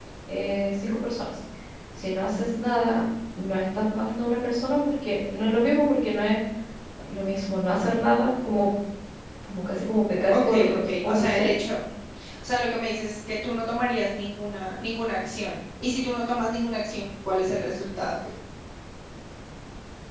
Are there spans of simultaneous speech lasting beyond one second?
Yes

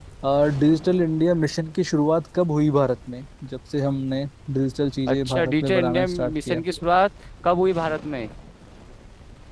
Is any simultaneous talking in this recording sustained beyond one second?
Yes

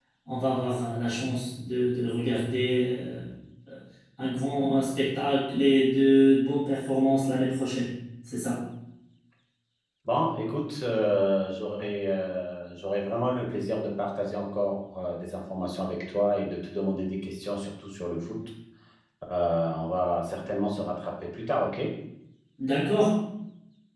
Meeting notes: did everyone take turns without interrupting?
Yes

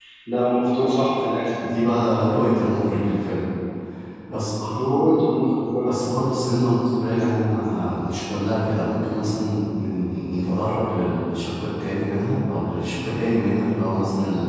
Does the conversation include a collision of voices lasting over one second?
No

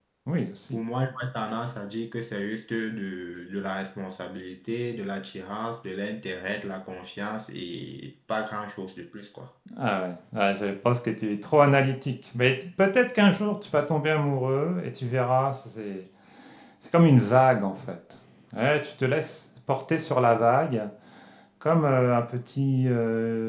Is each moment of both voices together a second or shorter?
Yes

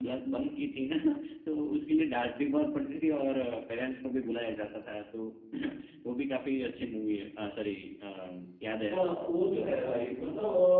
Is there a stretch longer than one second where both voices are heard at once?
No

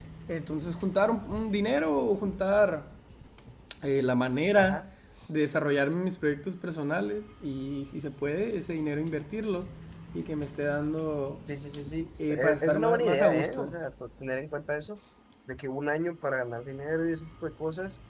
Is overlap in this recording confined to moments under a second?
No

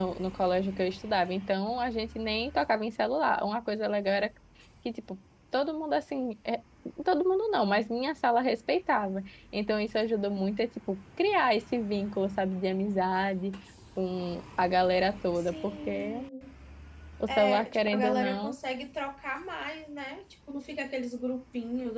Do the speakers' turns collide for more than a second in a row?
Yes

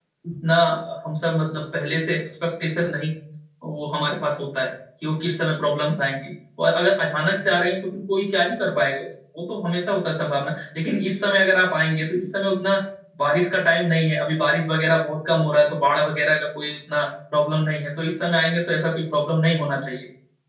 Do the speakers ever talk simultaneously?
No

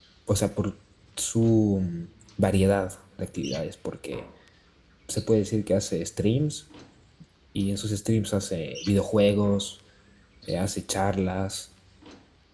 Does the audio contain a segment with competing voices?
No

